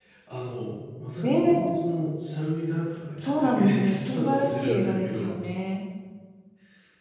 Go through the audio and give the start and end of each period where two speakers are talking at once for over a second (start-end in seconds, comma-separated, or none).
3.2-5.3